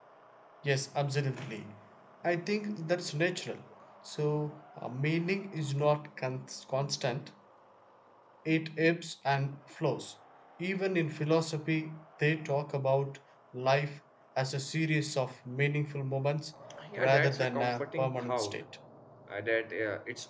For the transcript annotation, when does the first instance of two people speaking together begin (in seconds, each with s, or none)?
17.0 s